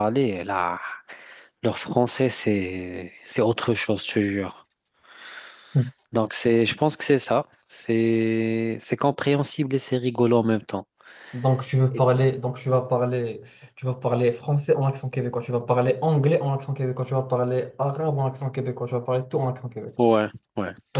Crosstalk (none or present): none